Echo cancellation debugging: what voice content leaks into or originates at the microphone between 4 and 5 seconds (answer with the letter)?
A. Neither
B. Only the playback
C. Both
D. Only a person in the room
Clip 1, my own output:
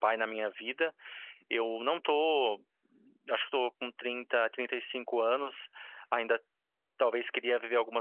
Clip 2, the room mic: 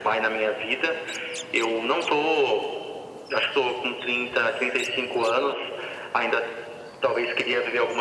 B